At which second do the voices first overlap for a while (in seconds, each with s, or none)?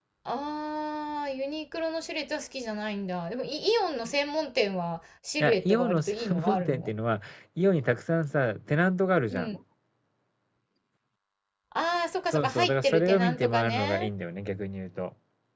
5.4 s